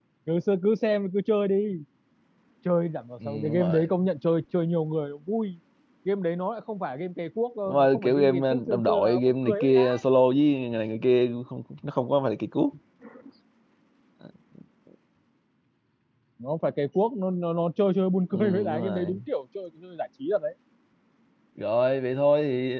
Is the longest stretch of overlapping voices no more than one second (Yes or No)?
No